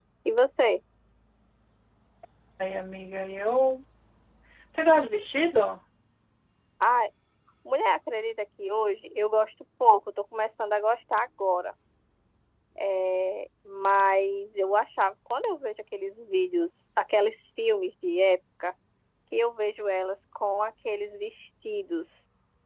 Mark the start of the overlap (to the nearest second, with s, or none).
none